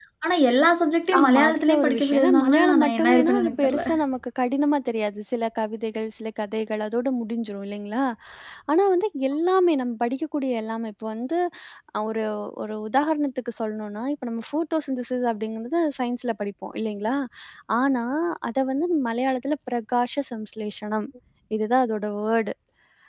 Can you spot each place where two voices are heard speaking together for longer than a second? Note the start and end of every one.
1.2-3.9

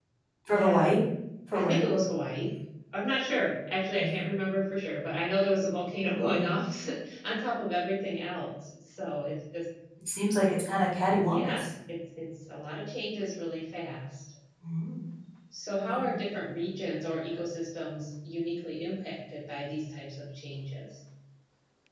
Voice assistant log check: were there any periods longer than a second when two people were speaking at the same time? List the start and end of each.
none

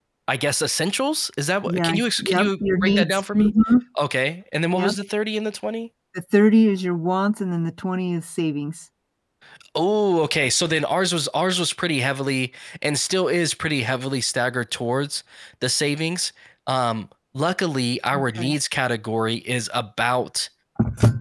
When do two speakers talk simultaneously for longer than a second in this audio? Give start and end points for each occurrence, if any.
1.6-3.5

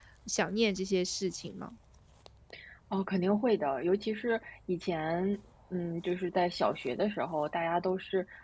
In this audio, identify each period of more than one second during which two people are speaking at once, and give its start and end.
none

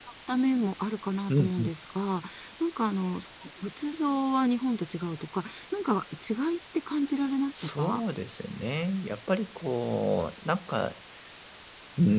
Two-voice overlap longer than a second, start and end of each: none

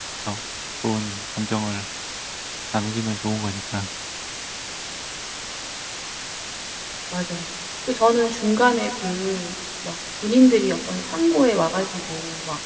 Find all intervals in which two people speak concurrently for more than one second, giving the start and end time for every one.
none

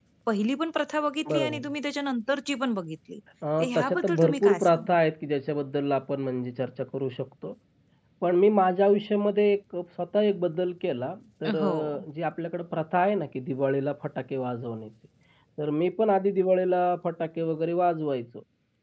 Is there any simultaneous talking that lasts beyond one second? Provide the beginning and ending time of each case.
3.6-5.0

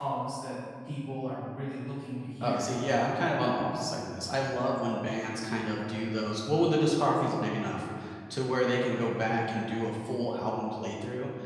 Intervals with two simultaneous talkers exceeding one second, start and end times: none

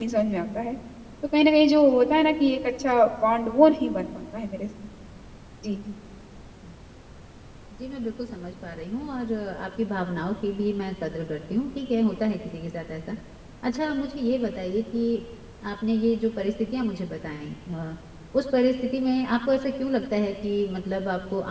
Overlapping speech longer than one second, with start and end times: none

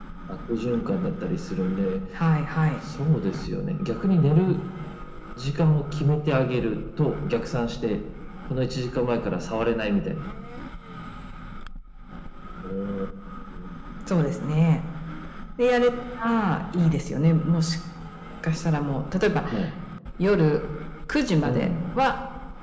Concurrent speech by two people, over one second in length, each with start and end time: none

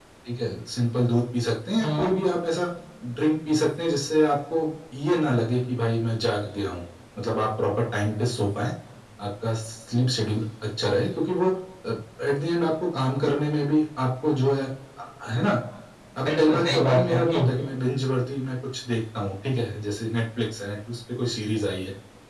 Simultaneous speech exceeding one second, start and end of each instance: 16.2-17.5

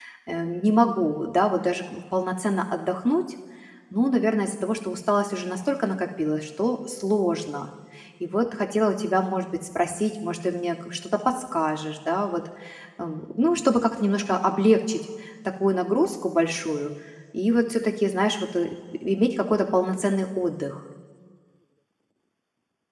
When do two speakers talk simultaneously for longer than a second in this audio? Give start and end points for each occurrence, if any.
none

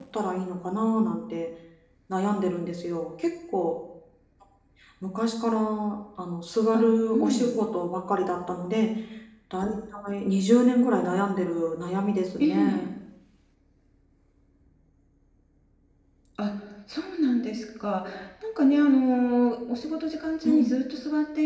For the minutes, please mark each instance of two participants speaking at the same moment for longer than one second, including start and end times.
none

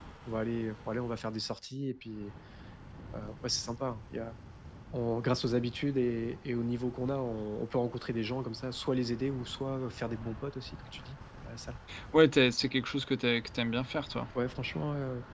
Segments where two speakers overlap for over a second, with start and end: none

